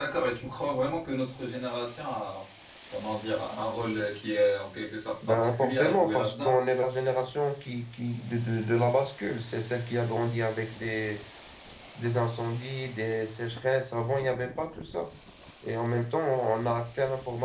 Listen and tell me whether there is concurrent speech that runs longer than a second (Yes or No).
Yes